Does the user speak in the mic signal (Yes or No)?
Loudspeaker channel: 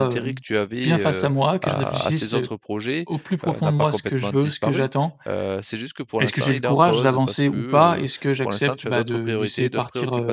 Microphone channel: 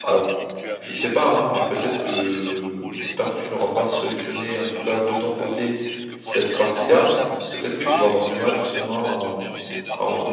Yes